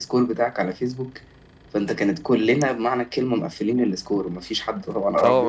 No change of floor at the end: No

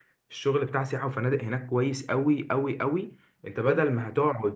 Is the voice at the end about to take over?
No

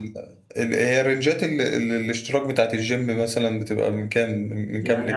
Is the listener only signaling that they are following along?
No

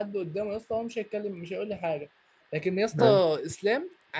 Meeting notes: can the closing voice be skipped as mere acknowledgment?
Yes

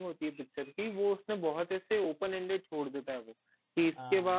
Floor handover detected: No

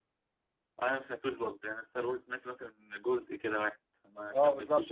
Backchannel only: No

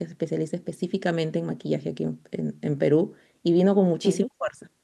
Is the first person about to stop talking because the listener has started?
No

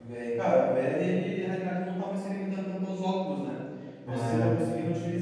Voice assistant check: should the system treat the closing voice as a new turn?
No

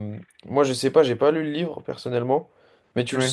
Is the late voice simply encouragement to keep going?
Yes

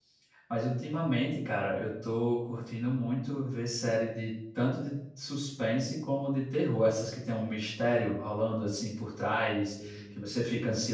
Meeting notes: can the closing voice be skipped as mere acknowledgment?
Yes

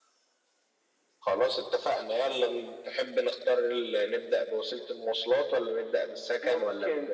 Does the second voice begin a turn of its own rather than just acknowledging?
Yes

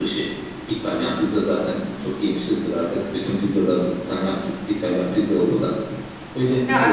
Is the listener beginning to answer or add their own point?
No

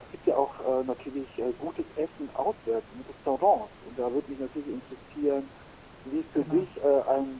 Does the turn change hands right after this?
No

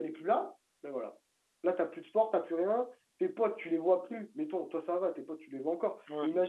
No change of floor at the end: Yes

